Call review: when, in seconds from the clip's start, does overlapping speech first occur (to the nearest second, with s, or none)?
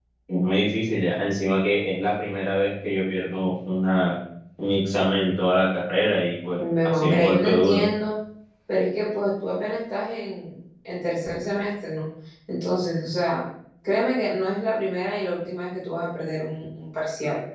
7 s